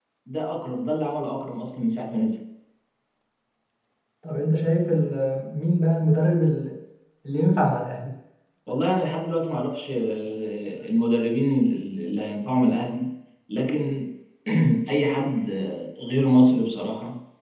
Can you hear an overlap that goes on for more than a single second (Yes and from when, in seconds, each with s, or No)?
No